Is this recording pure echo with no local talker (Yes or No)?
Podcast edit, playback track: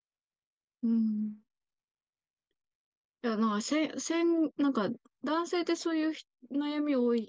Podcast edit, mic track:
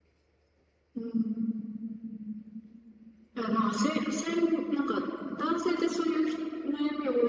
Yes